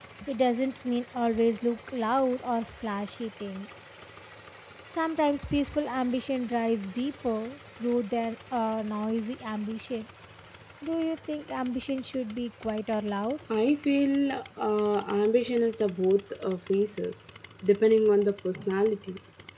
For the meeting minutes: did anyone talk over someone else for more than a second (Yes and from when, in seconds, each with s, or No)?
No